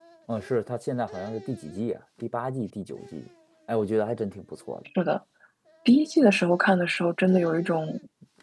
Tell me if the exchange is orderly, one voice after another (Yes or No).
Yes